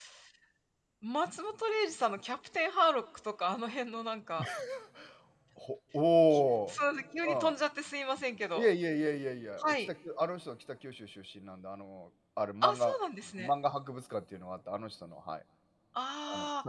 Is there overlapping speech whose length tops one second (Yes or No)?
No